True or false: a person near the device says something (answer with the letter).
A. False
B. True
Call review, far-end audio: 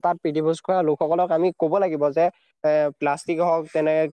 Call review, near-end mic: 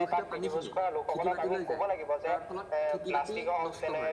B